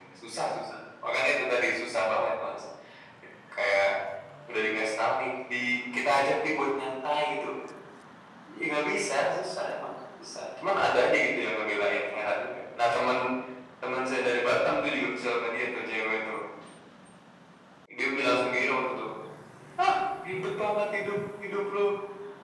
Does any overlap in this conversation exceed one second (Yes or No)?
No